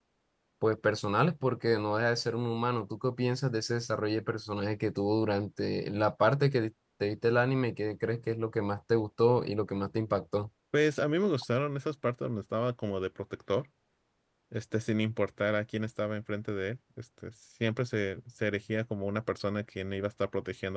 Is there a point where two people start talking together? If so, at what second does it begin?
none

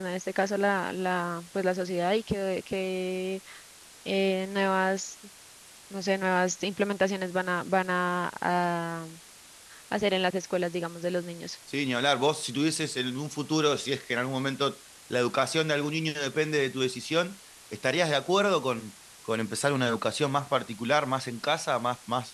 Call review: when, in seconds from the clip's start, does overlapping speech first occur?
none

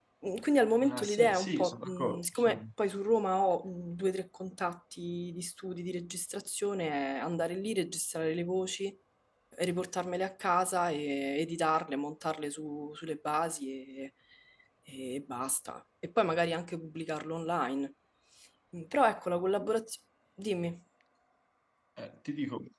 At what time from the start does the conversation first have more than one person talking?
0.8 s

